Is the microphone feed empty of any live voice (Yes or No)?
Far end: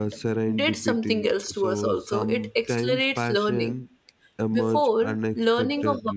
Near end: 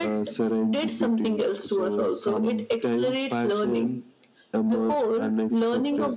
Yes